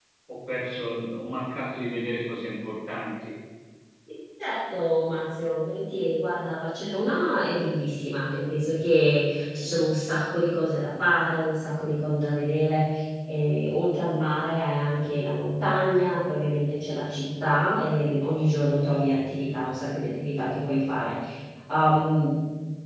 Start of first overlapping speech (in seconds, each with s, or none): none